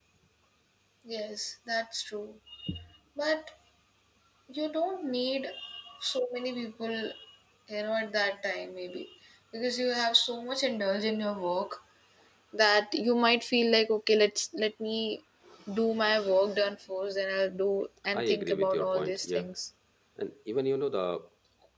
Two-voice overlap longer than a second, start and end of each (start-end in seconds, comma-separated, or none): 18.1-19.4